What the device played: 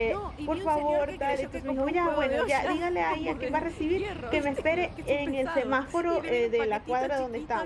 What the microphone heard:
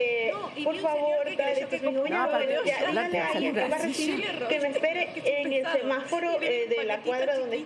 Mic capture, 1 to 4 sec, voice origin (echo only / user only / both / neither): both